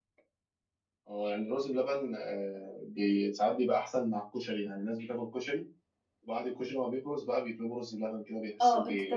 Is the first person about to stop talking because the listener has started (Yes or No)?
Yes